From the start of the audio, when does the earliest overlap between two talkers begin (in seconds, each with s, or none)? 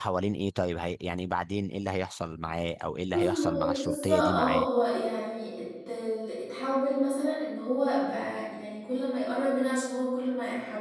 3.1 s